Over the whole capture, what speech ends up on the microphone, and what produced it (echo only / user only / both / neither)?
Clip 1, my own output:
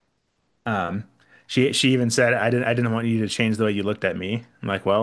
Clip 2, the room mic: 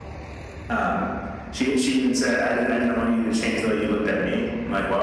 echo only